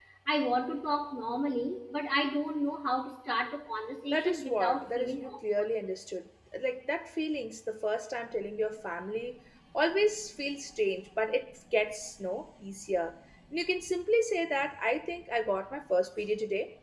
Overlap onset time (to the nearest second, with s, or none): 4 s